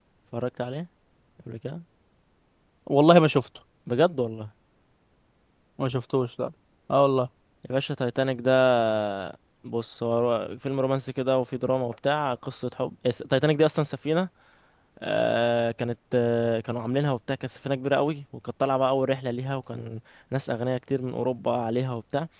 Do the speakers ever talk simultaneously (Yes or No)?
No